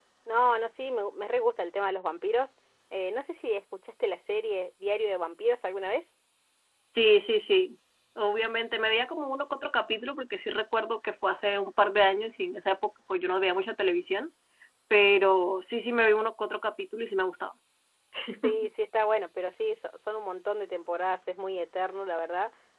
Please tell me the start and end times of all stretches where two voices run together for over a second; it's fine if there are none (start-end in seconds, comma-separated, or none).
none